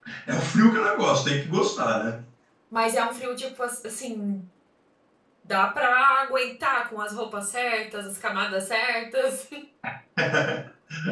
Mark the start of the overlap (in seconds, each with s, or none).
none